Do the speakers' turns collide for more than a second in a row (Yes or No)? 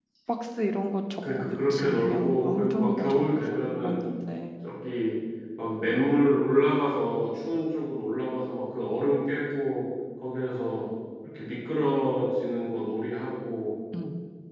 Yes